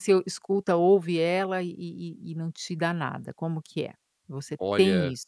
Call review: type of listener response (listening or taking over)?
taking over